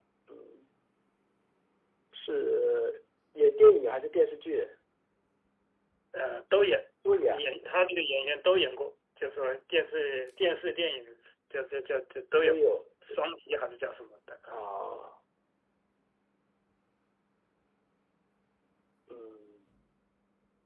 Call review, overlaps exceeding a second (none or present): none